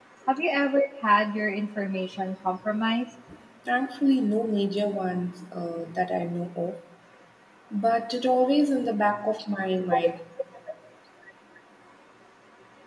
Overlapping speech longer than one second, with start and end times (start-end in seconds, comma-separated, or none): none